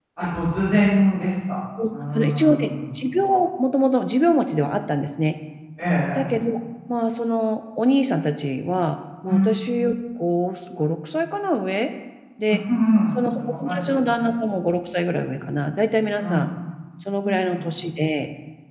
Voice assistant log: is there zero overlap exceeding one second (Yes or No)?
No